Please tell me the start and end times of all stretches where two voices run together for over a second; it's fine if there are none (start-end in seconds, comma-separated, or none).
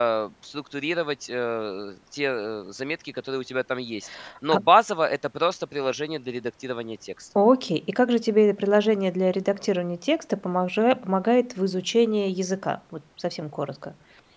none